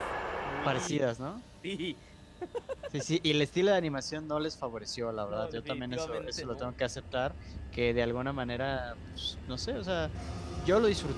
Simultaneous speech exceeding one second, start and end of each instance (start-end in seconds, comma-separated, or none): 5.3-6.8